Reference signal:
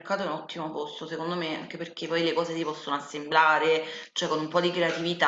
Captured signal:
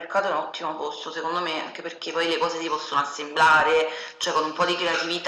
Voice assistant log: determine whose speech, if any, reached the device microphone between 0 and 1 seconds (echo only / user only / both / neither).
echo only